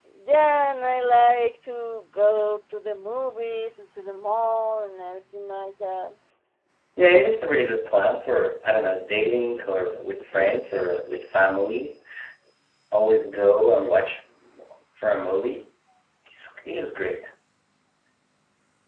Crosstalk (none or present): none